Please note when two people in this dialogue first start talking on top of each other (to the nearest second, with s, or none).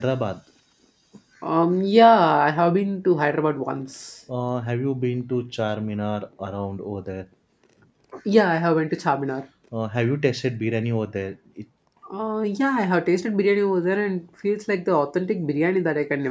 none